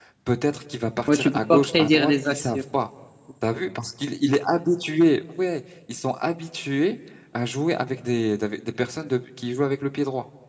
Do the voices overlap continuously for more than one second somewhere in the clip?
Yes, from 1.1 s

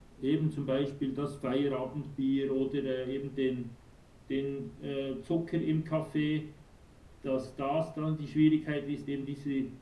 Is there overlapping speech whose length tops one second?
No

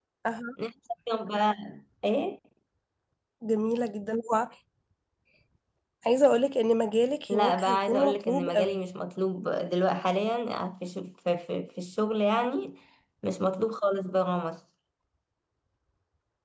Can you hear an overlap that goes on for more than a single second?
Yes, from 7.3 s

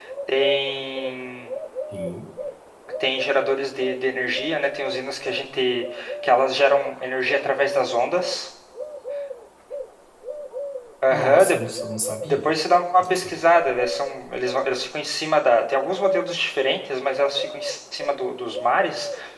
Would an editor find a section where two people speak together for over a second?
No

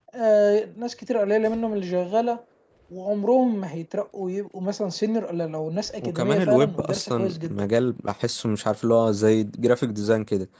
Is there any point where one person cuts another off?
Yes, from 6.0 s

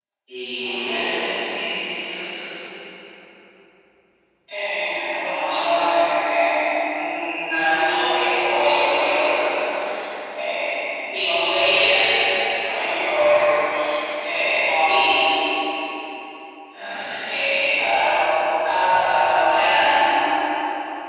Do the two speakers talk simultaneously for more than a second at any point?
No

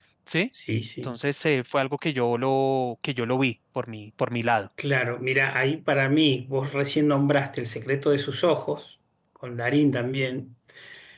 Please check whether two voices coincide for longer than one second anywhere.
No

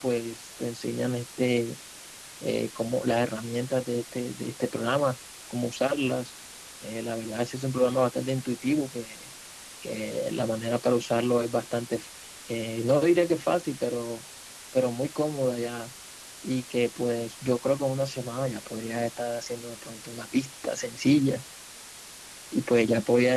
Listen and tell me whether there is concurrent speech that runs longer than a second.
No

